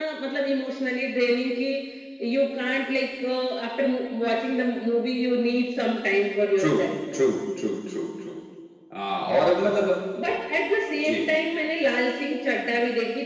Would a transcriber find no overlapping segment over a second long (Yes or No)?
Yes